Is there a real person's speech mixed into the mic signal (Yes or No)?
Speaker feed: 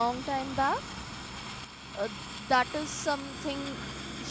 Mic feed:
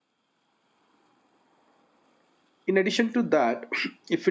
Yes